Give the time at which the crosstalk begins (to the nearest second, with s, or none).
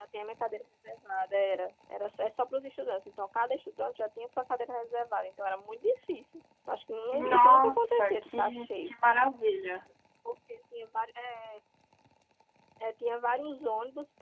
7 s